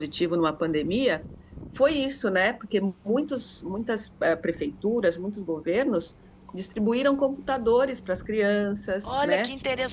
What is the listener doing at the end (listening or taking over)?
taking over